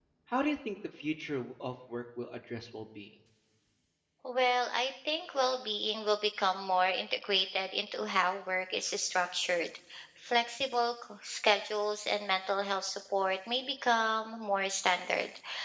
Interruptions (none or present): none